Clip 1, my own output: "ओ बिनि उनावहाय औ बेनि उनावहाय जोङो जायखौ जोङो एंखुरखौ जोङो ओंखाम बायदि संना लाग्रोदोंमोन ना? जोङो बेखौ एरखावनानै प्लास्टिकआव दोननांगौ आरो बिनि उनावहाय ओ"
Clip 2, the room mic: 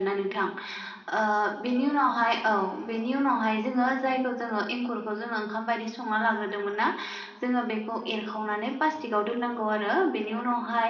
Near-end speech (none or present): none